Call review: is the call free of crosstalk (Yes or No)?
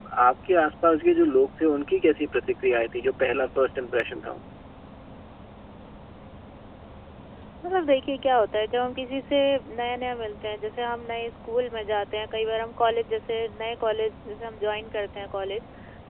Yes